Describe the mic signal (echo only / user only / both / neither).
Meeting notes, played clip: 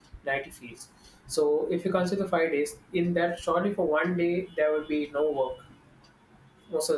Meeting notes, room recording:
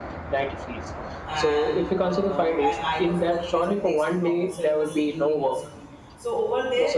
both